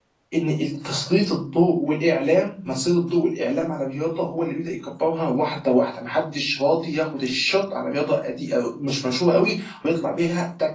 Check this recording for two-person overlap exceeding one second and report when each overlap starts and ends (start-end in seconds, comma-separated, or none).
none